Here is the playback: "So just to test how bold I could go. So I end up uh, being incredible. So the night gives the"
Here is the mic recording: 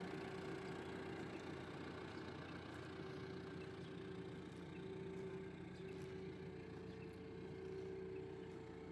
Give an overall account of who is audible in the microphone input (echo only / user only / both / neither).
neither